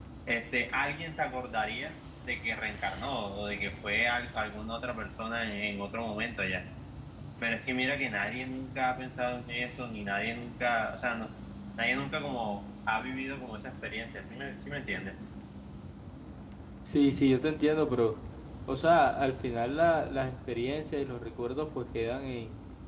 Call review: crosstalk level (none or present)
none